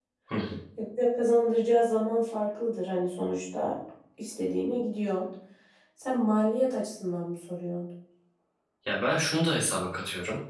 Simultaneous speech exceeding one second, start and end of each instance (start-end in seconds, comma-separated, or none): none